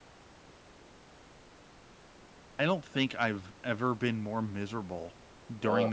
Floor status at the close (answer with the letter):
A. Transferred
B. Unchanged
B